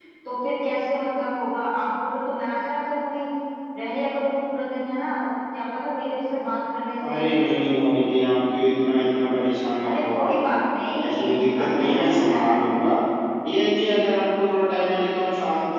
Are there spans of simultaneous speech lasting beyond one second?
Yes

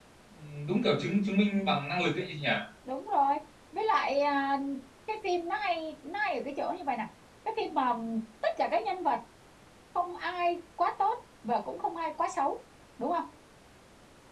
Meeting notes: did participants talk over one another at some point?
No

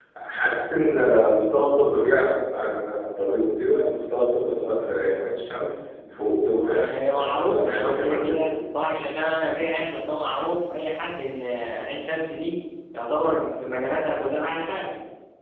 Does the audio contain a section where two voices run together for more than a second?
Yes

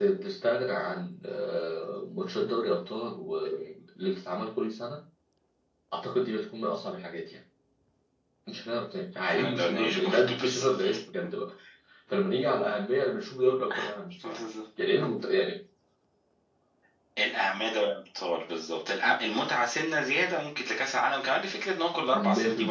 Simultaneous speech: Yes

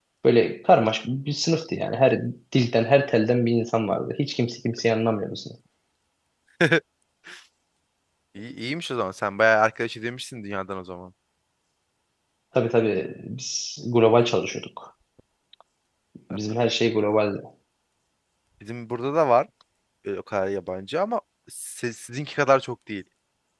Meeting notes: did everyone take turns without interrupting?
Yes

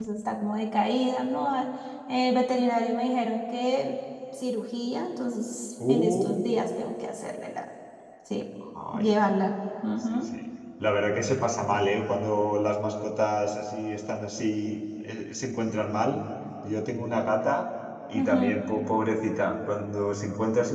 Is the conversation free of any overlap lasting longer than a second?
Yes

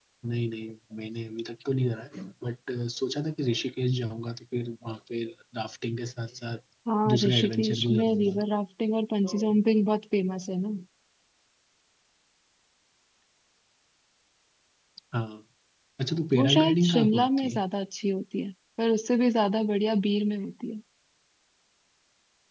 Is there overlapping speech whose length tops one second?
Yes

